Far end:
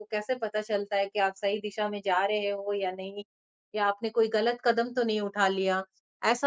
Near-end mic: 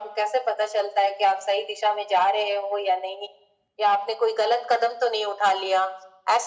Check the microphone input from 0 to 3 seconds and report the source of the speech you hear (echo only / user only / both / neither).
echo only